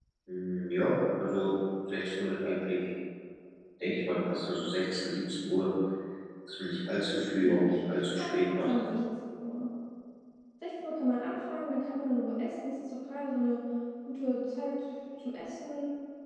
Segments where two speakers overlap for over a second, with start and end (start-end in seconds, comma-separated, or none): 7.4-8.7